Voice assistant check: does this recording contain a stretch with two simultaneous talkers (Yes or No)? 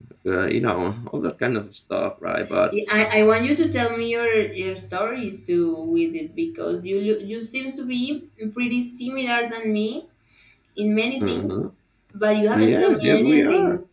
Yes